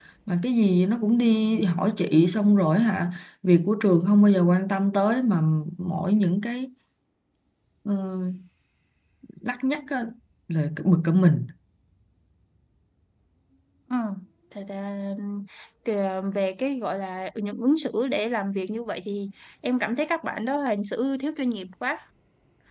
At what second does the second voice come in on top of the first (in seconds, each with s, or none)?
none